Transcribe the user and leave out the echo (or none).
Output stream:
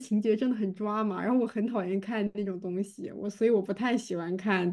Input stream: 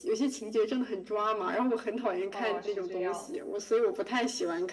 哦，是这样。